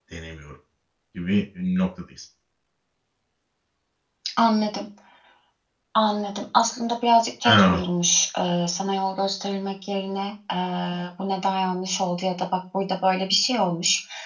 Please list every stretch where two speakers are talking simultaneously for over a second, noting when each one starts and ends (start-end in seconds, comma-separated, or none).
none